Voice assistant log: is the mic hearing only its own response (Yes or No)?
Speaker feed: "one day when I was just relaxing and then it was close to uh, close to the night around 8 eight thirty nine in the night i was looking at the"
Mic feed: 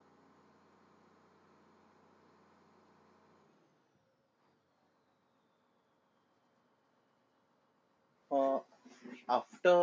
No